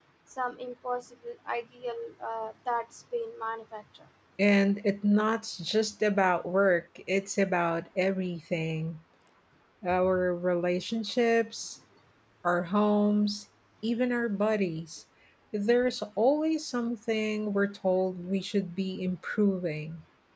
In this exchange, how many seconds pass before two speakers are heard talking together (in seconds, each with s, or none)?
none